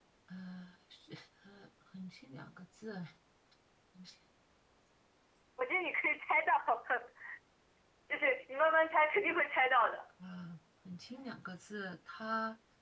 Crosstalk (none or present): none